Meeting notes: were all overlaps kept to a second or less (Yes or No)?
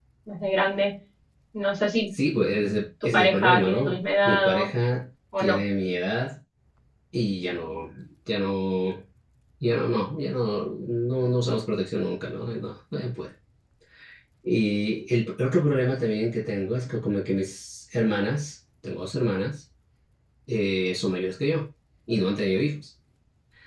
No